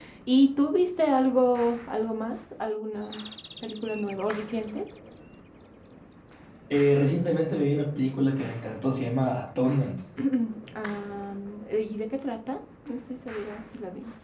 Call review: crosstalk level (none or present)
none